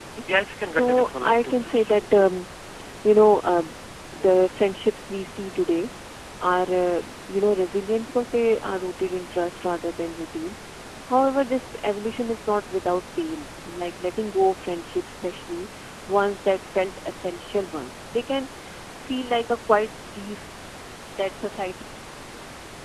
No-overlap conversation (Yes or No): No